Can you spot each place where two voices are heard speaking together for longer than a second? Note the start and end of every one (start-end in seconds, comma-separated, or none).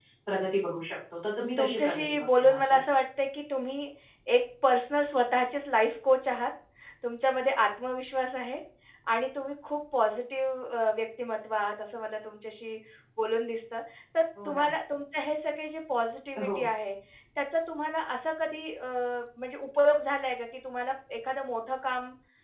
1.6-2.8